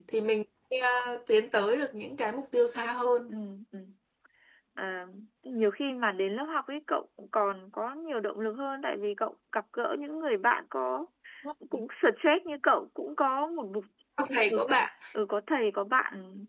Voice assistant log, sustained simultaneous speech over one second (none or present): none